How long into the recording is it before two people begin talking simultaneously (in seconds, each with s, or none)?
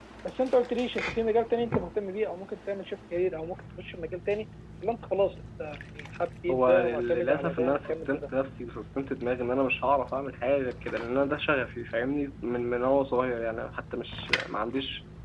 6.5 s